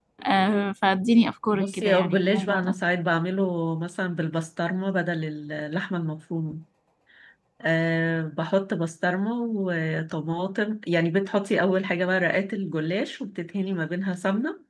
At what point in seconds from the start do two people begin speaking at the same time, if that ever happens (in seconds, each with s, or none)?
1.5 s